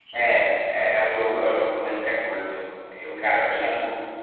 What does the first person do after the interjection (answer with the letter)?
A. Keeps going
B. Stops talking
A